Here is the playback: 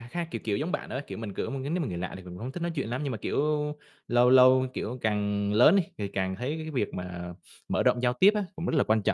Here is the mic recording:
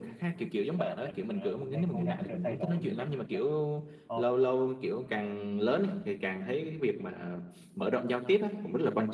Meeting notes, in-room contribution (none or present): present